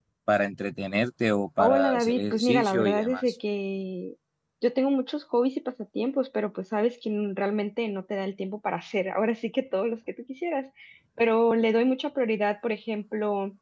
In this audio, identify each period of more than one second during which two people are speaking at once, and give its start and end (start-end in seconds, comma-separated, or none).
1.6-3.2